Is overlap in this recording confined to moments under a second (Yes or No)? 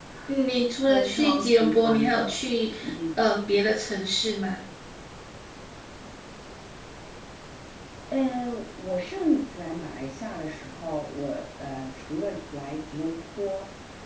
No